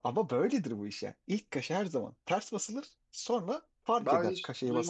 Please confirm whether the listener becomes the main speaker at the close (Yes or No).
Yes